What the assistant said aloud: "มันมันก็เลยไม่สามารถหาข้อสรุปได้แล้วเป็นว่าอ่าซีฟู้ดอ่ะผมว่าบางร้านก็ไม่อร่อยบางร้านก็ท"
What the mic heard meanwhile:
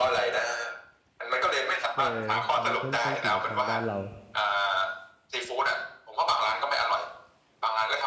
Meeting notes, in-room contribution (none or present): present